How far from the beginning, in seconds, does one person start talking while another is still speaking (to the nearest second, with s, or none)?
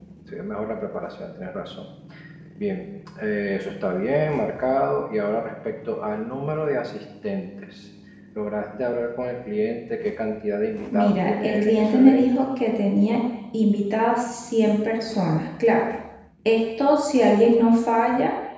11 s